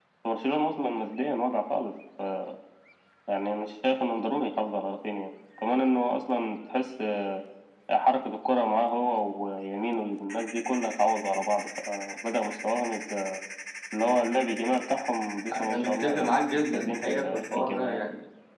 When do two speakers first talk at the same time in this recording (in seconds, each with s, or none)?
15.5 s